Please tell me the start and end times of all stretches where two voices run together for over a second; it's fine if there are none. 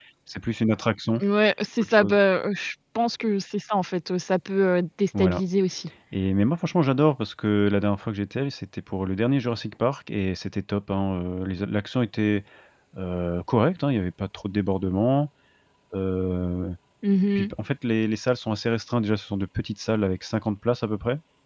none

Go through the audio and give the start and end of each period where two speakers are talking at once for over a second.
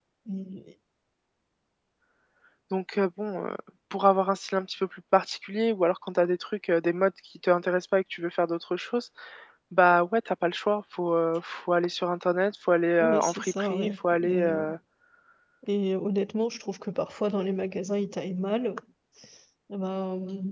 13.0-14.7

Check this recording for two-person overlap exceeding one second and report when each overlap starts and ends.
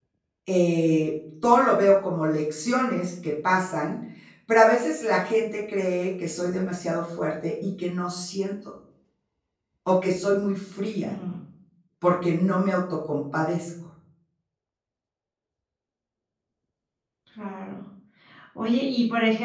none

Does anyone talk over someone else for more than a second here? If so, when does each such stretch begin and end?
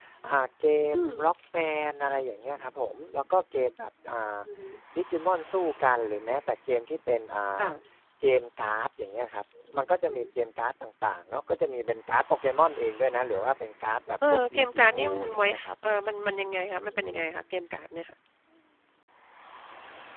14.3-15.7

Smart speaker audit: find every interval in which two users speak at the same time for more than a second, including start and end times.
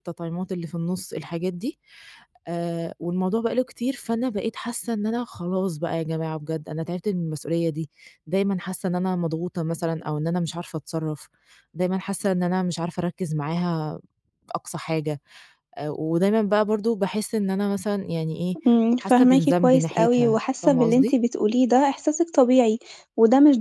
19.1-21.0

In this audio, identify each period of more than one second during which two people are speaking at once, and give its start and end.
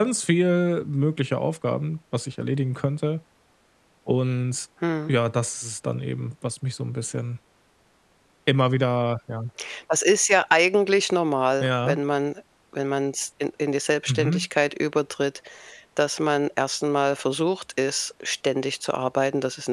none

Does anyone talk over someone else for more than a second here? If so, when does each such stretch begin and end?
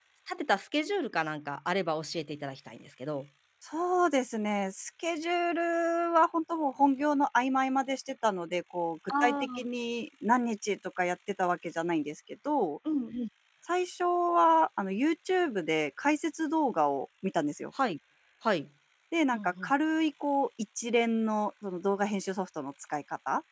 none

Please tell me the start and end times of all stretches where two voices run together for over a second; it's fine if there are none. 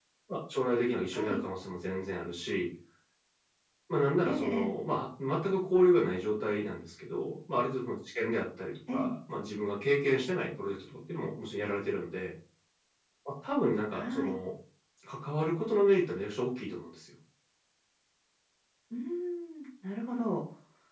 none

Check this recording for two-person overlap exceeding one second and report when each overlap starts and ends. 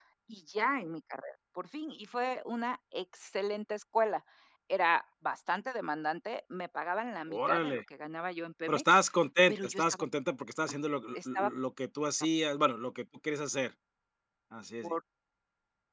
none

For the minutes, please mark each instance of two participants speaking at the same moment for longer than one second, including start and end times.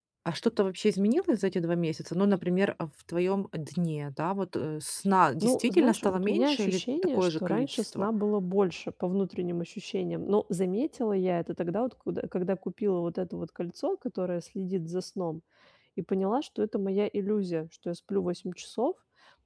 5.4-8.1

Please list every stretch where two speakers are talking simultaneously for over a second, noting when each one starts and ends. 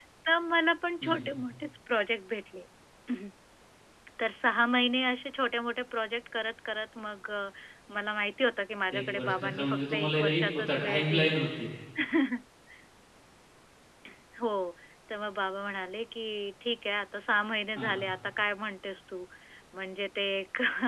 8.9-11.4

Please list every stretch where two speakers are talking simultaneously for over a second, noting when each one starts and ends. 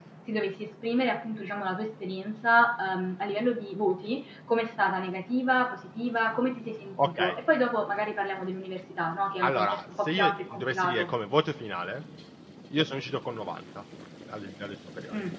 9.4-11.1

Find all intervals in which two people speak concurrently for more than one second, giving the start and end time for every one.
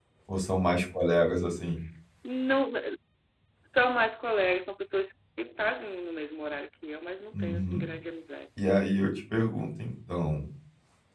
none

